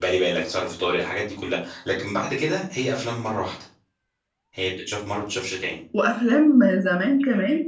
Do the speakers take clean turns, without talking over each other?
Yes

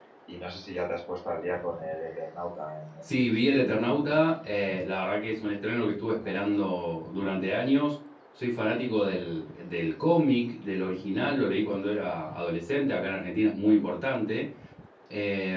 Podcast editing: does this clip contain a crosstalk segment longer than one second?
No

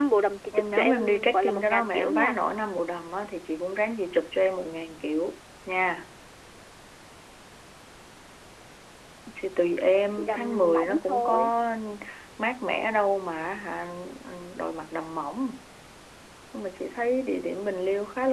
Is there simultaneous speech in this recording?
Yes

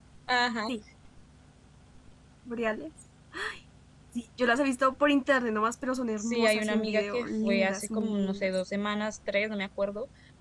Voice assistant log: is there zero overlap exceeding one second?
No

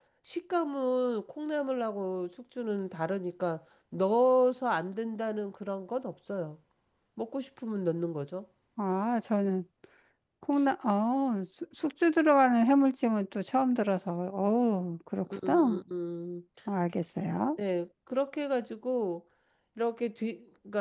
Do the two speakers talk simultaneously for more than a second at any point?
No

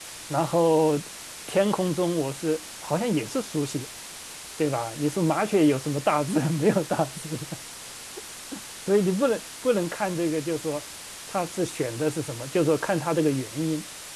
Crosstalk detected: No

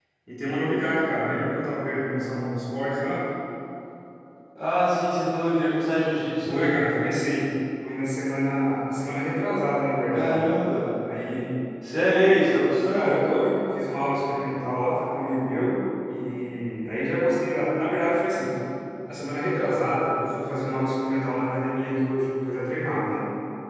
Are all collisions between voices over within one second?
Yes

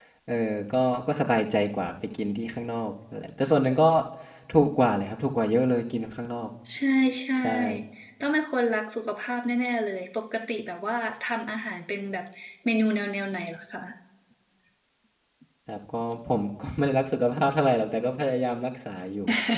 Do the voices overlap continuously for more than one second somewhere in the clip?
No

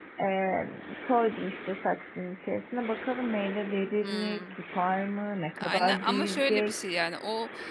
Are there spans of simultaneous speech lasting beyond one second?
Yes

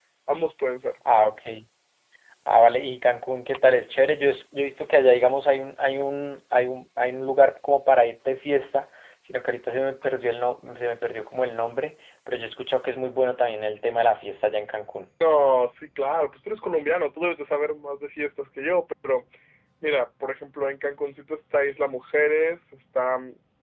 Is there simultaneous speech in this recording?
No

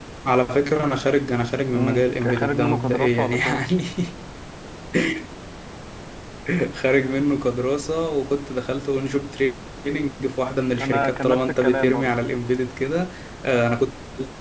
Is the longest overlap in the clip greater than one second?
Yes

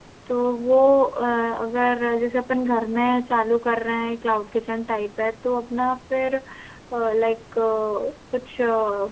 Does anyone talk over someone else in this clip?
No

